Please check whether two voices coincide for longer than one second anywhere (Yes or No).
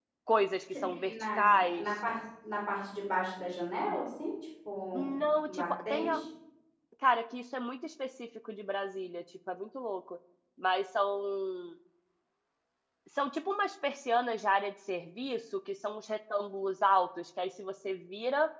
Yes